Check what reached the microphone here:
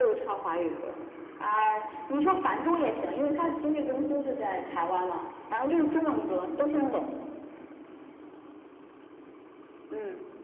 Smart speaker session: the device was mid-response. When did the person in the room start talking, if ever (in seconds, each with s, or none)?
none